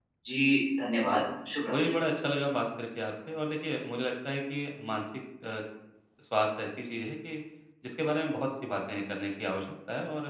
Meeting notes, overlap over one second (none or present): none